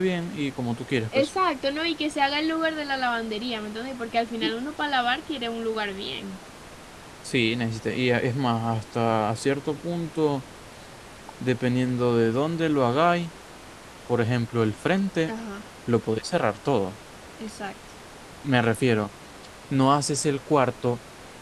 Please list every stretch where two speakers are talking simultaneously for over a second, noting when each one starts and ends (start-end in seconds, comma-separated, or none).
none